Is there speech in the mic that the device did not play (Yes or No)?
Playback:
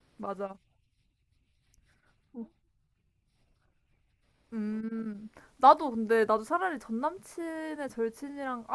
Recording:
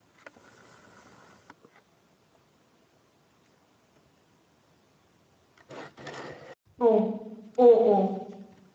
Yes